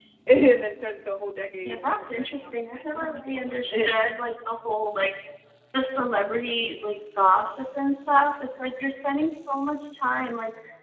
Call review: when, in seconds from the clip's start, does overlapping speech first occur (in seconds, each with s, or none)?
1.6 s